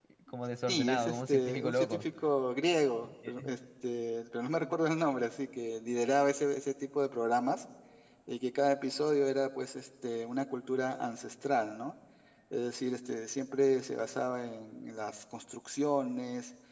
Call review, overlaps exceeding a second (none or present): present